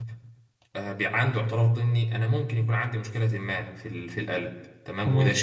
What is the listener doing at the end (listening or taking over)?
listening